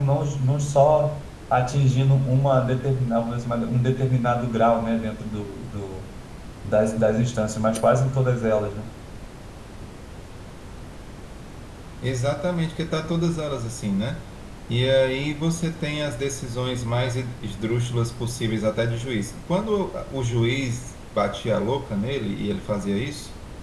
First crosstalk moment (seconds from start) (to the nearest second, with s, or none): none